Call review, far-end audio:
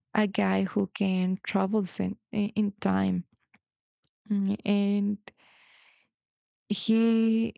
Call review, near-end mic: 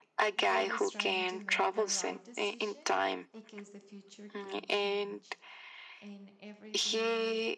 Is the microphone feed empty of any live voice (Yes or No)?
No